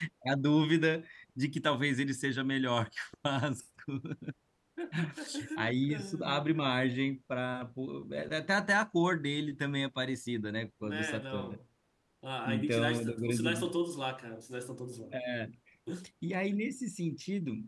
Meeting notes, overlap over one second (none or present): present